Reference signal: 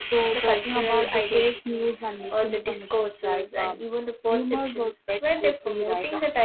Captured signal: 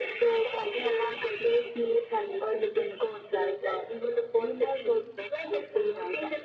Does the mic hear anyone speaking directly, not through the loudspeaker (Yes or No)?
No